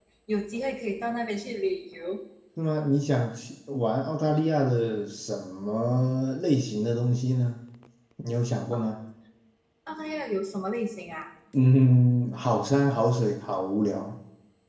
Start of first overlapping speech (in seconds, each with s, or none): none